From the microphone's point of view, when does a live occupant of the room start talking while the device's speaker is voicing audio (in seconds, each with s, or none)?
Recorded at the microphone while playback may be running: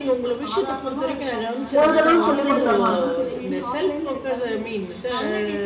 1.8 s